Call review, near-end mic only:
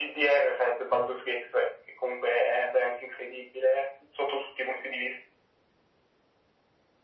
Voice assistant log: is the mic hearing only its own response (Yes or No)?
Yes